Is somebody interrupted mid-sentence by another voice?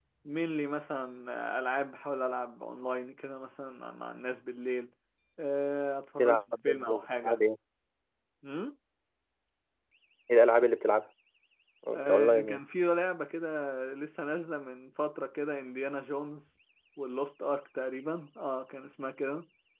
Yes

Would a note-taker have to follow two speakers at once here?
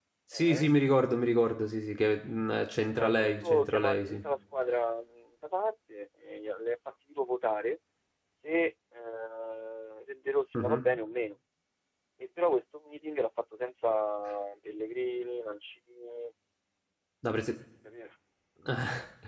Yes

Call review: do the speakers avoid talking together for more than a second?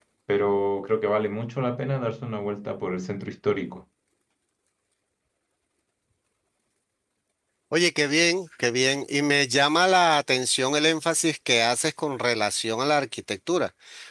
Yes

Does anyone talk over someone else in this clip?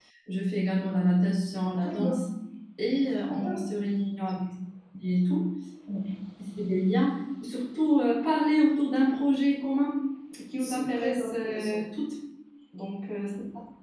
Yes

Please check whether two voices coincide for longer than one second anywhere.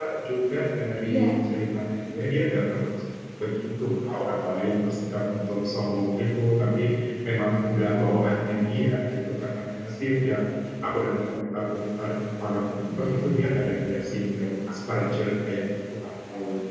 Yes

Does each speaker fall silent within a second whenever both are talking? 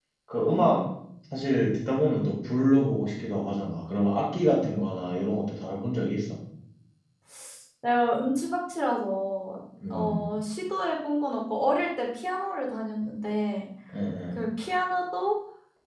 Yes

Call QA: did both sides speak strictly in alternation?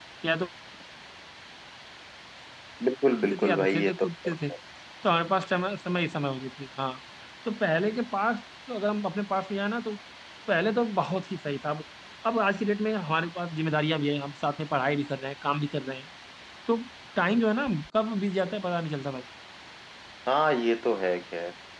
No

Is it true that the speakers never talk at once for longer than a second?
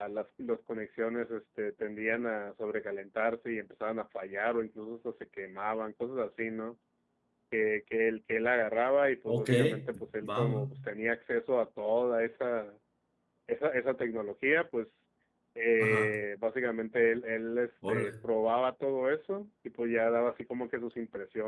Yes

